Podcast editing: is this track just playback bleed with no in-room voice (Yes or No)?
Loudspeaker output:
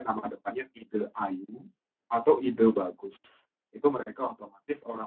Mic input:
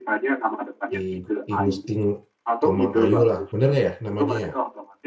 No